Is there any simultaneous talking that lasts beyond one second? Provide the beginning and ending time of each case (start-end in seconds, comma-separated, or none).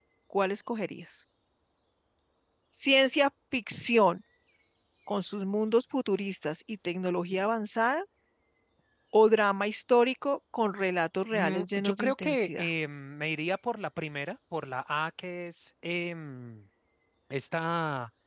11.3-12.7